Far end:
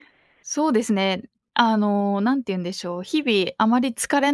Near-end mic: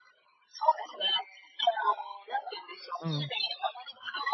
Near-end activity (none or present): present